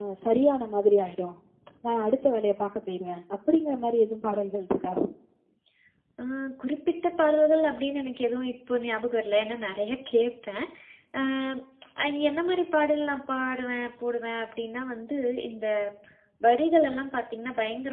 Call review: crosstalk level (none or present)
none